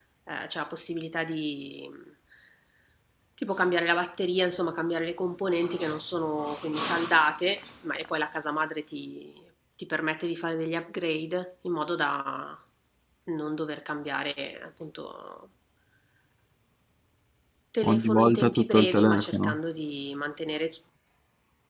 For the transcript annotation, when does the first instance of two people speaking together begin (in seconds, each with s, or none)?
17.8 s